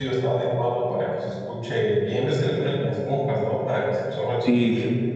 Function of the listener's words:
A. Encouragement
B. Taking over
B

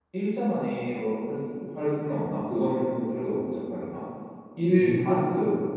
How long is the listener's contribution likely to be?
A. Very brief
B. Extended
A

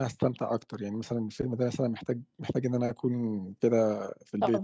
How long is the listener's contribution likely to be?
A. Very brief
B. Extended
B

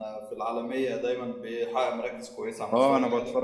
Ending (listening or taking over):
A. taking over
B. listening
A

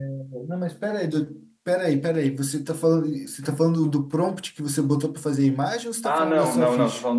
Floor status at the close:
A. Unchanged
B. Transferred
B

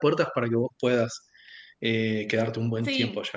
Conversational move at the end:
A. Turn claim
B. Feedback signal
A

